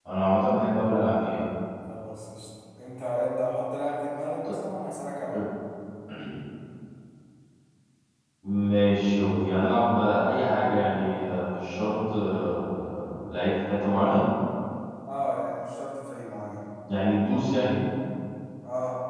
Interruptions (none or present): none